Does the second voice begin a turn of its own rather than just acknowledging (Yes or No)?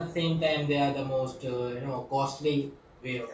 Yes